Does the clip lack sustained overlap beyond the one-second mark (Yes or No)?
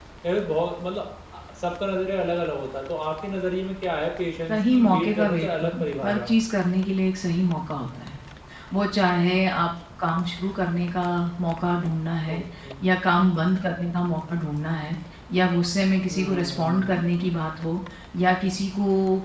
No